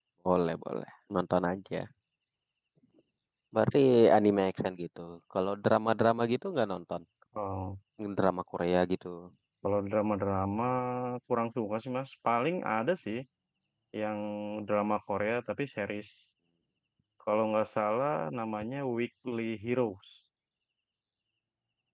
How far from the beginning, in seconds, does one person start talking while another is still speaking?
none

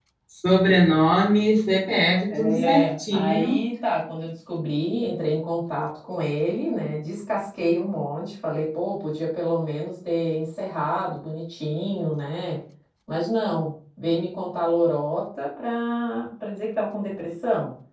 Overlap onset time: 2 s

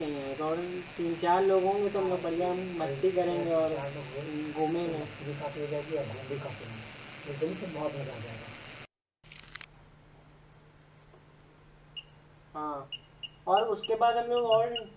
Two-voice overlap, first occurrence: 2 s

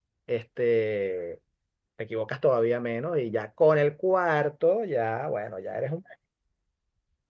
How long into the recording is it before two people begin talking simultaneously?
none

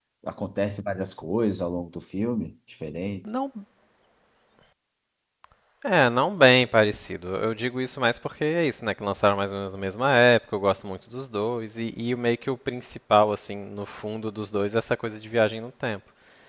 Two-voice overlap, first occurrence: none

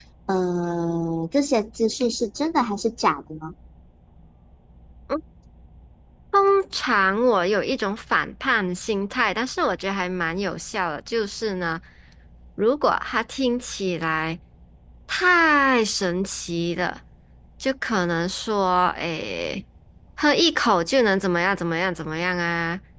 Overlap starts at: none

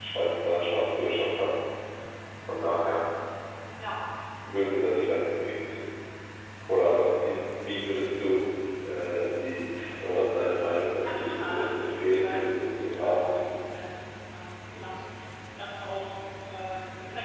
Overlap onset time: 11 s

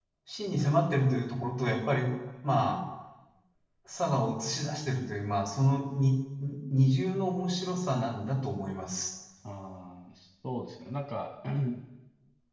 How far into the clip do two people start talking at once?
none

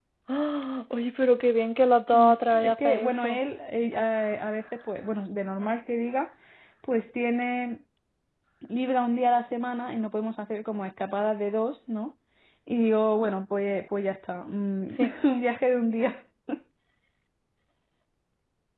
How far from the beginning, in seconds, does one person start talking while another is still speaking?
2 s

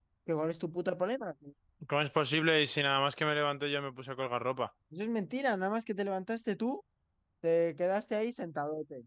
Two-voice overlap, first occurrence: none

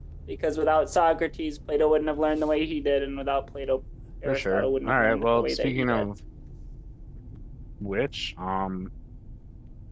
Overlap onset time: 4 s

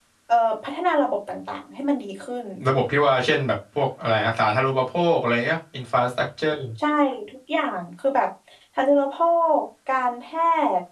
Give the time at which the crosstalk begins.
none

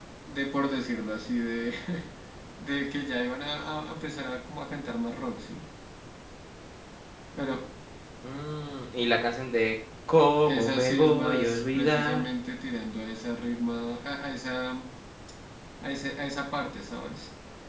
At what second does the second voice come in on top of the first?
10 s

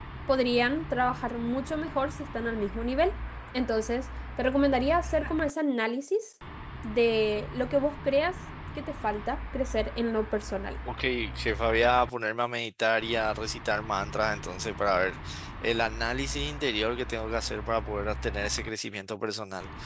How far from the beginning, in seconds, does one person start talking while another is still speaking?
none

